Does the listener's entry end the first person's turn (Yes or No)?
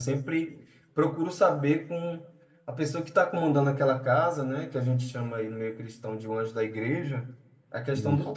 No